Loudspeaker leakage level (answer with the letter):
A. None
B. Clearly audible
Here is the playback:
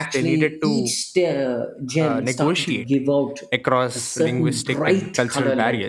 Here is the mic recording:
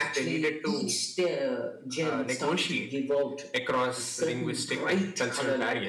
B